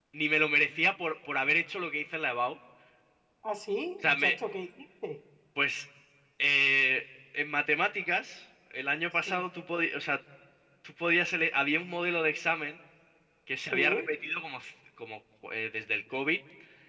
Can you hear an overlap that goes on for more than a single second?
No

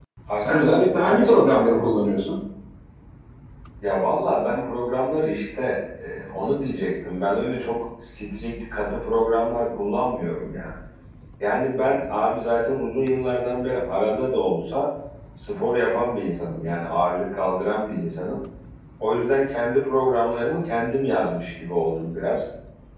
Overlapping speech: Yes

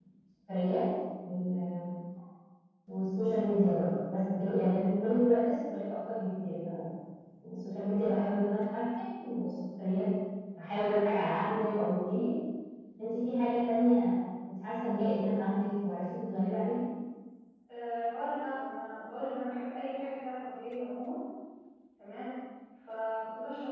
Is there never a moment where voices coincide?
Yes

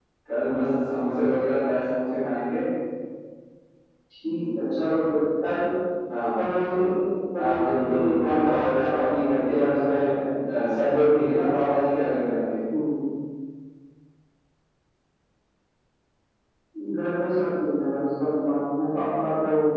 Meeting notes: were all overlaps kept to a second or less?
No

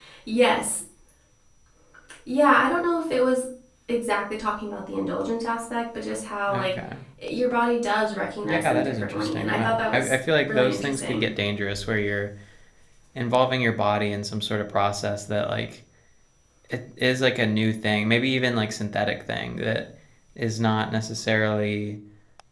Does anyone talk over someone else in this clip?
Yes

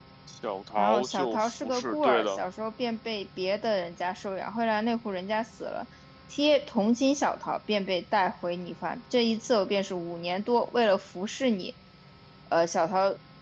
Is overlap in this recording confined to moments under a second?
No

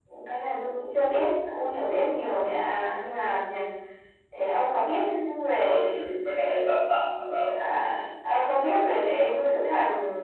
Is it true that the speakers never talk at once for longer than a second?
Yes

